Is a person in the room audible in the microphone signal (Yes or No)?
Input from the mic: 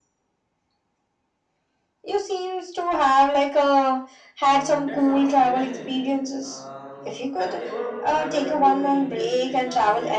Yes